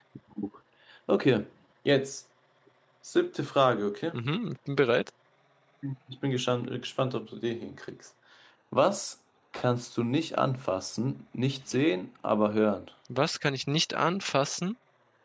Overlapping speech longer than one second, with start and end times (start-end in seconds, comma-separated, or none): none